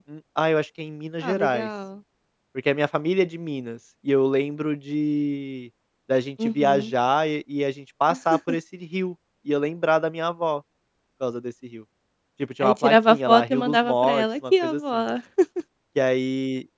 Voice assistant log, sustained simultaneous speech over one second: present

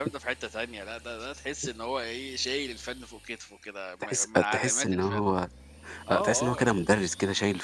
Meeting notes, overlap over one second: present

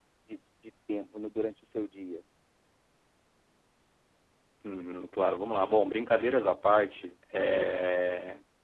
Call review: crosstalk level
none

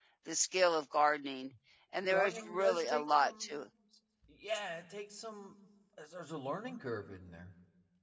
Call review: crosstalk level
present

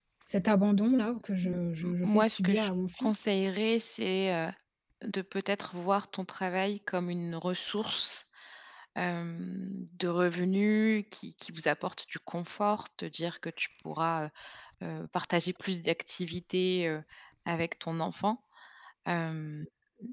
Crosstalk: present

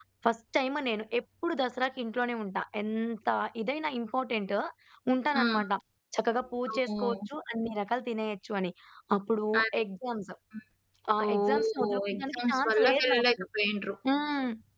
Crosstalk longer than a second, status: present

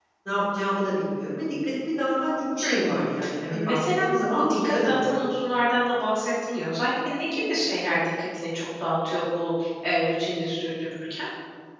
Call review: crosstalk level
present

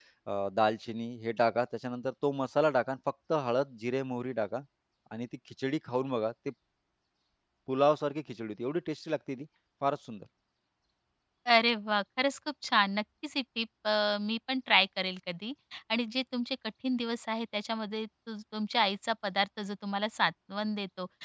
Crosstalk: none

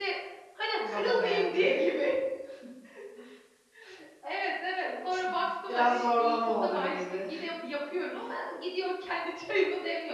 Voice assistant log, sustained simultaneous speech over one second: present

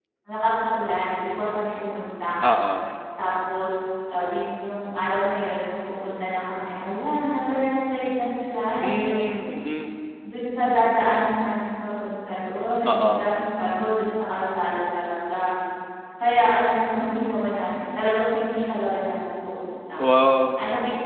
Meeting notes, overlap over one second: none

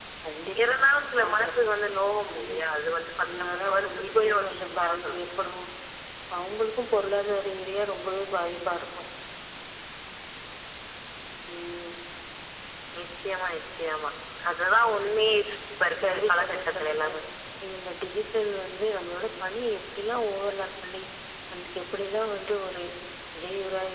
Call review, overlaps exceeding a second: present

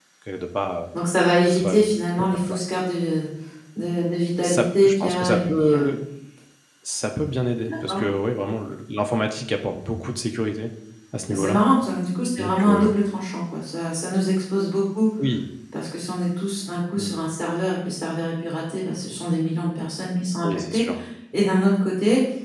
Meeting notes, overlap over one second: present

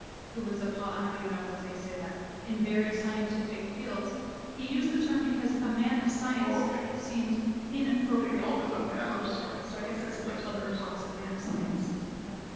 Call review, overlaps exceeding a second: present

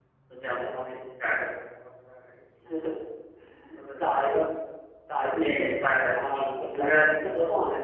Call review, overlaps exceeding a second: present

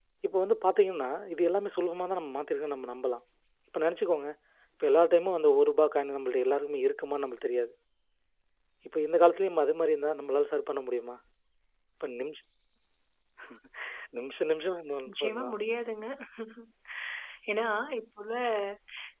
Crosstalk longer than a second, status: none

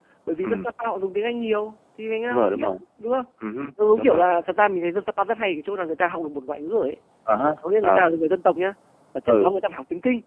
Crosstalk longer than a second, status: none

